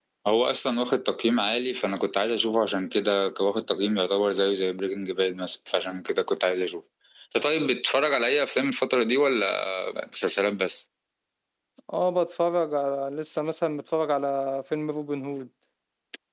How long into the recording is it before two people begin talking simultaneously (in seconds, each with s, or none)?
none